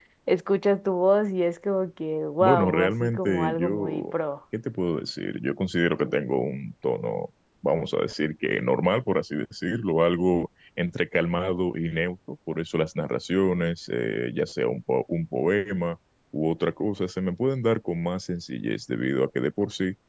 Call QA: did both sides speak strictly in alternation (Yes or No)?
No